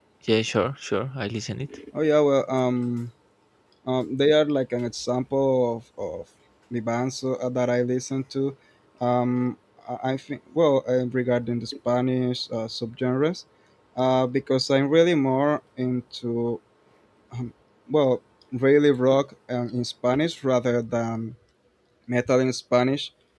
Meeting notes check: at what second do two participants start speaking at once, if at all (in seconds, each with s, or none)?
none